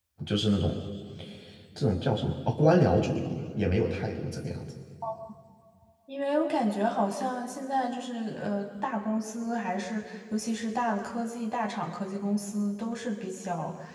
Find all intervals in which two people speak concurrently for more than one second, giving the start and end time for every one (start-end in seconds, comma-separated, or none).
none